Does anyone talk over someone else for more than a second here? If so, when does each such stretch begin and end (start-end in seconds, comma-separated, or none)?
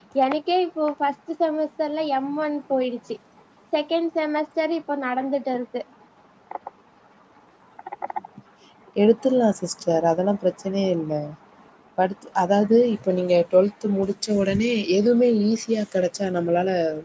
none